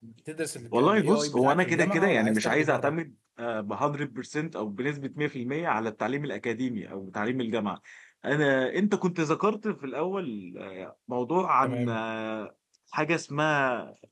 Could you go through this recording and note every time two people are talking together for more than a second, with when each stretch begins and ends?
0.7-2.9

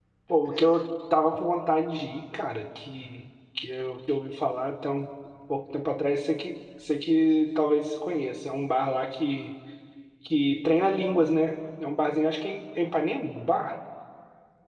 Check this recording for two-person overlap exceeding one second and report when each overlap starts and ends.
none

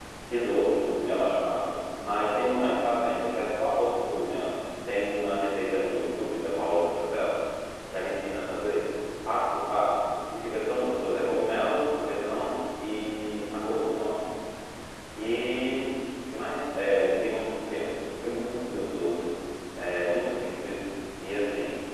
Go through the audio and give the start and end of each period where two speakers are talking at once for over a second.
none

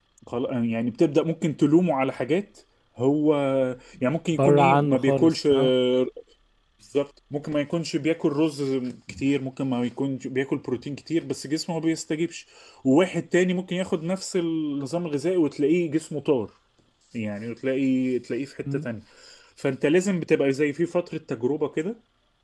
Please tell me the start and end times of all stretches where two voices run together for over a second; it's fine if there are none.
4.4-5.7

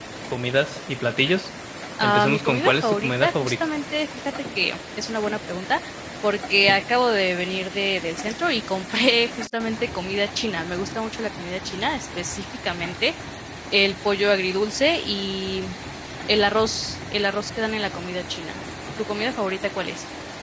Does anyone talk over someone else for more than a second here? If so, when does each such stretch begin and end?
2.0-3.6

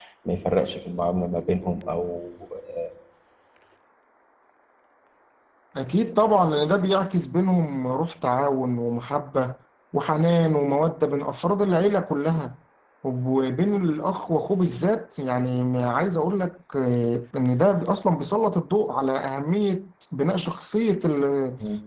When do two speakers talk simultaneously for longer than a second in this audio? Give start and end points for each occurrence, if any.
none

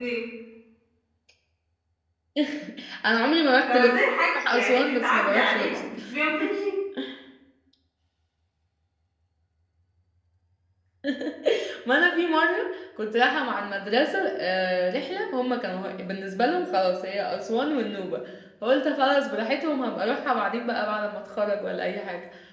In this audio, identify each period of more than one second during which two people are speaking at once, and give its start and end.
4.4-5.9

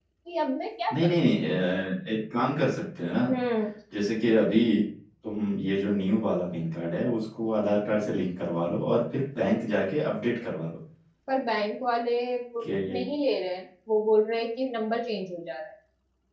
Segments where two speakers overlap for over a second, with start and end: none

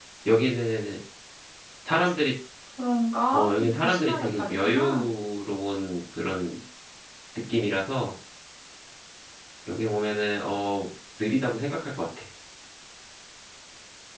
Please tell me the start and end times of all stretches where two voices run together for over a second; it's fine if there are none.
3.3-5.1

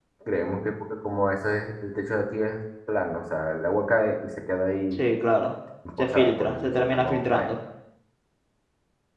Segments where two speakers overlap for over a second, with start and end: 6.0-7.5

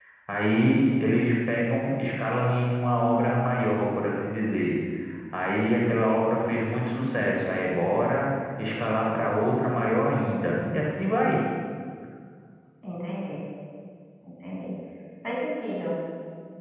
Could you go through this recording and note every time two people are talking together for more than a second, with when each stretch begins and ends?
none

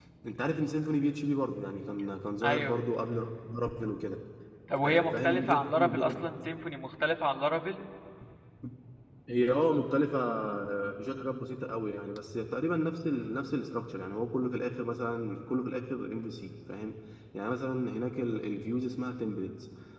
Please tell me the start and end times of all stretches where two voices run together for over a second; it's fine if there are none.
4.8-6.2

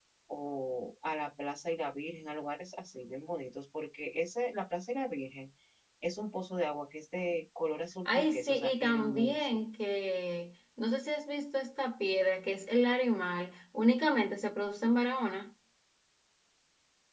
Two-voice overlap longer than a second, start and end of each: 8.1-9.6

